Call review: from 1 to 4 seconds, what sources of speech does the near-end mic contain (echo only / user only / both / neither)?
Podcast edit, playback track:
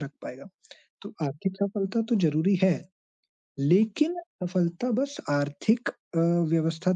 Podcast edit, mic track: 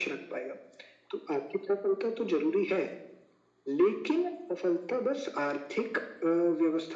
echo only